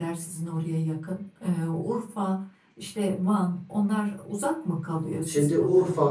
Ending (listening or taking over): taking over